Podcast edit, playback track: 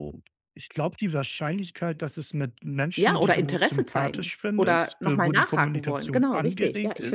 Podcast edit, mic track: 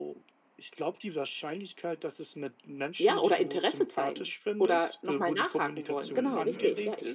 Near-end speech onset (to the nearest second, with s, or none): 6 s